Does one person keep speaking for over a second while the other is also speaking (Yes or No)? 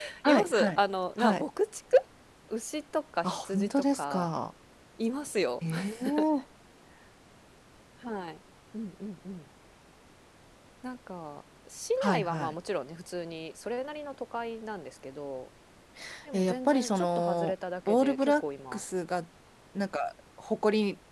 Yes